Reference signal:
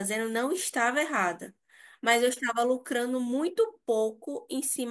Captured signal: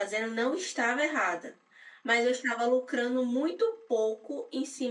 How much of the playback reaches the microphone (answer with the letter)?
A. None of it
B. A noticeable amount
B